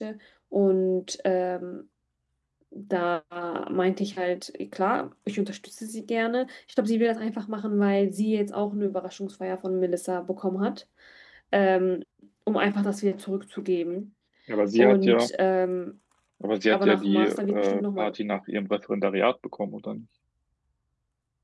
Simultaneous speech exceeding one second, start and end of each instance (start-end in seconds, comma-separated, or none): 16.7-18.1